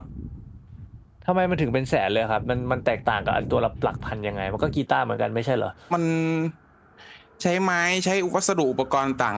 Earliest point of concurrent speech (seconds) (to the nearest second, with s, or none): none